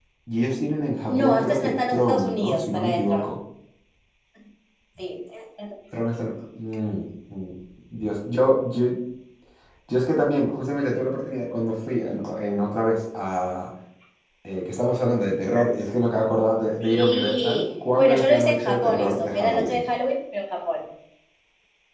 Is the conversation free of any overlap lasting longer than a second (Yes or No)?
No